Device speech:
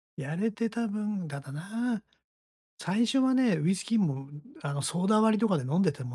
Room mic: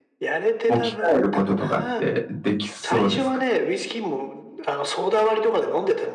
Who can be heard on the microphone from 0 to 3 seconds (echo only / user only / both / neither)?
both